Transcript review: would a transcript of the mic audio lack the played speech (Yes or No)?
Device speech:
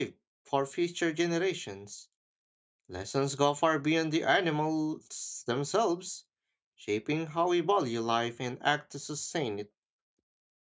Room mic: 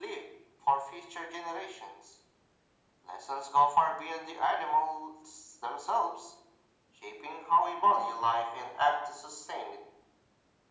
No